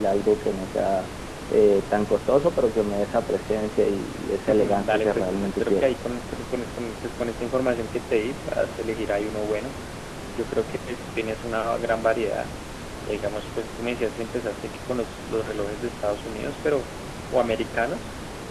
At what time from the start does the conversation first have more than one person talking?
4 s

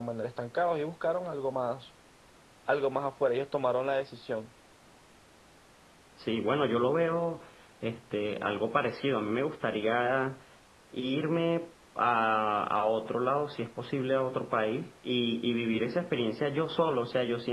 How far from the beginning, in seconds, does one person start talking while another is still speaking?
none

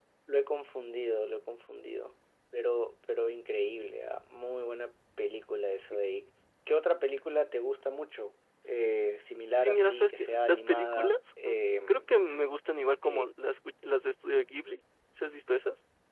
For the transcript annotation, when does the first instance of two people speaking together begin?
9 s

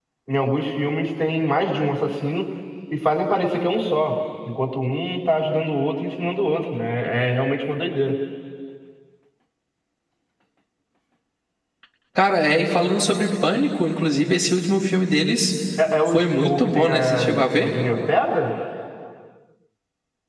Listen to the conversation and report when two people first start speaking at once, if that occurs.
16 s

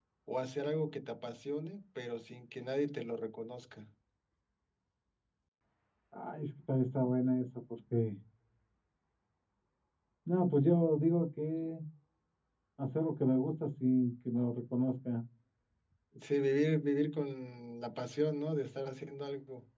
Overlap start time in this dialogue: none

